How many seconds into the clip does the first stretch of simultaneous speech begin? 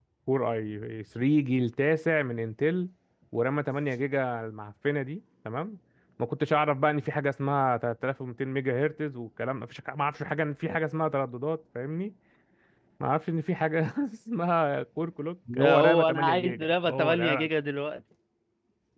15 s

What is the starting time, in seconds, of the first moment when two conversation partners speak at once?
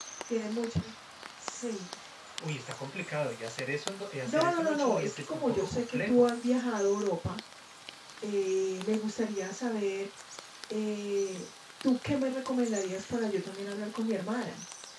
4 s

